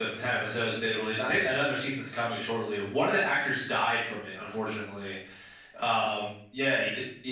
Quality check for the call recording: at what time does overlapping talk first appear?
none

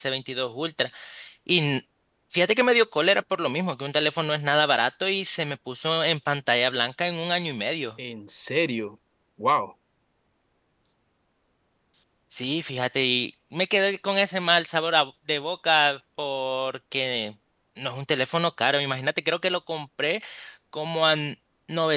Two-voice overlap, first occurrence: none

